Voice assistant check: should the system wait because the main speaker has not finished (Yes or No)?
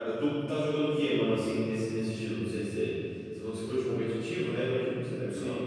No